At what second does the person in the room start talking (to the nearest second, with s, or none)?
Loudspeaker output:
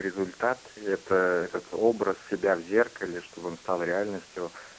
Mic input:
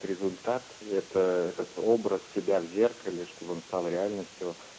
none